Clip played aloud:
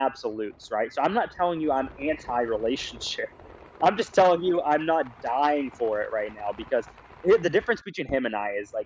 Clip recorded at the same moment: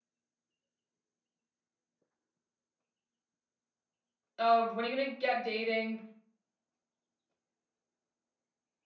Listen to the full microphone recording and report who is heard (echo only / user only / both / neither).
user only